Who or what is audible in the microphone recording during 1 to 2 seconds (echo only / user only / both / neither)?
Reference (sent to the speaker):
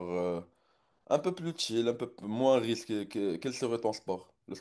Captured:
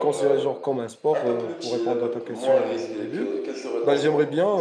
both